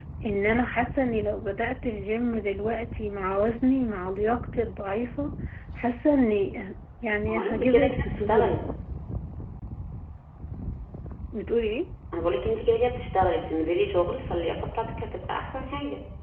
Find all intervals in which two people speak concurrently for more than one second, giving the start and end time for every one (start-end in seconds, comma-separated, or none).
7.3-8.6